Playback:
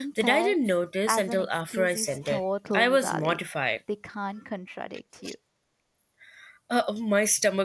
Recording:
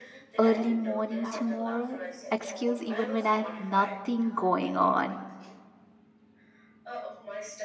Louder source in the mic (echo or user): user